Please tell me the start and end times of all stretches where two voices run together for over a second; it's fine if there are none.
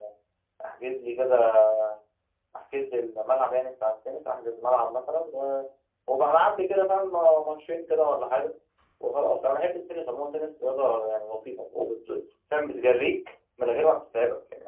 none

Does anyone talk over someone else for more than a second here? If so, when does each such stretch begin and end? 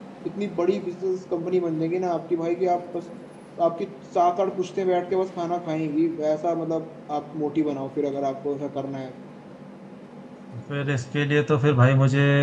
none

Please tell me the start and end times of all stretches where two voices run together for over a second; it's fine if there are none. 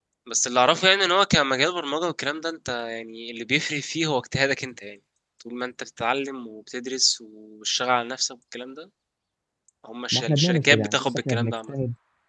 10.1-11.7

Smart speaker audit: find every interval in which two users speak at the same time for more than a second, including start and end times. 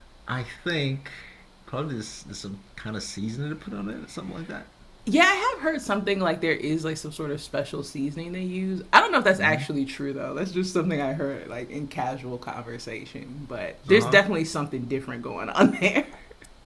none

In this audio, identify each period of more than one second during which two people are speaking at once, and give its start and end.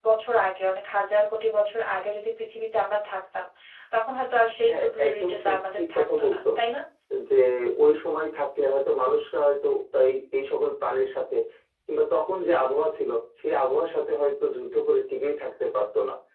4.7-6.4

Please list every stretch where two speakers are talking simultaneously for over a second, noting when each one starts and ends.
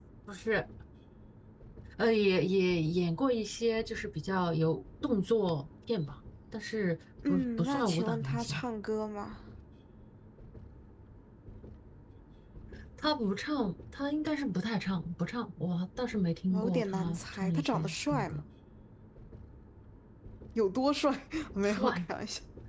7.3-8.6, 16.5-18.4

